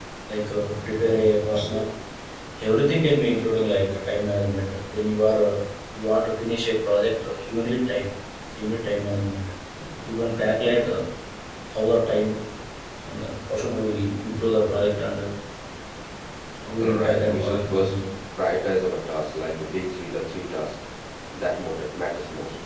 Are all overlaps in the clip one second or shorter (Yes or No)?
No